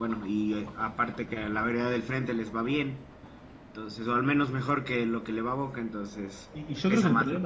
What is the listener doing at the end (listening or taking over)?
taking over